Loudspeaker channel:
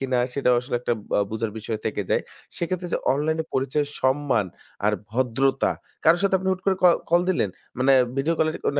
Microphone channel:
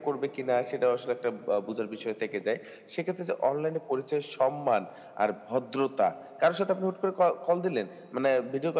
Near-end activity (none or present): none